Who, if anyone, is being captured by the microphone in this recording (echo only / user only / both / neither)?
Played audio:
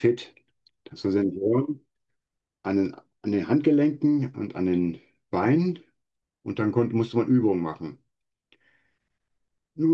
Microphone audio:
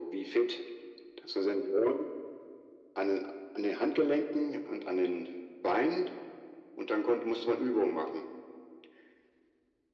echo only